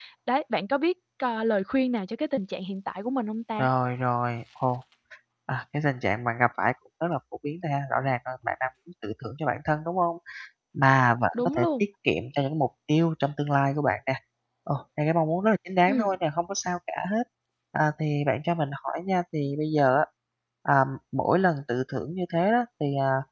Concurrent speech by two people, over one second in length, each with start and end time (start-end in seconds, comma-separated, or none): none